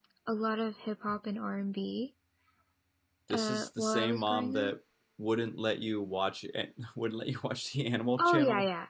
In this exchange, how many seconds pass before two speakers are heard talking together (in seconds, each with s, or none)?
3.3 s